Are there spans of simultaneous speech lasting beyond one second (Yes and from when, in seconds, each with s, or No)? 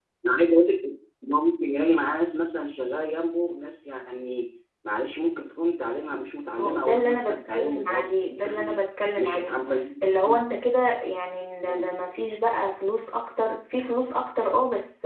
Yes, from 6.6 s